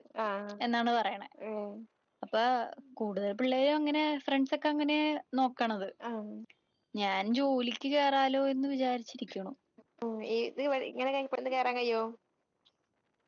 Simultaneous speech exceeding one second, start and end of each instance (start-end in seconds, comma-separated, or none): none